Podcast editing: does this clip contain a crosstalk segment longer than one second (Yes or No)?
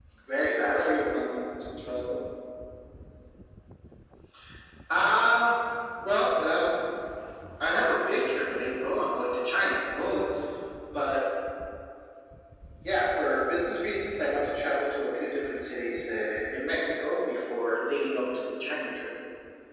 No